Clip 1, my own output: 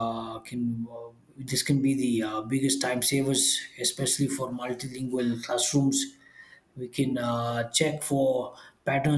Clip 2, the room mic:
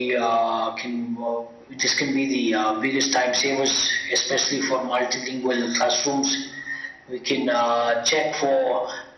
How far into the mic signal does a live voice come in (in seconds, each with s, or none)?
none